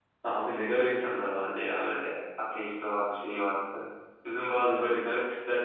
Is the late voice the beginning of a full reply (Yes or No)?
No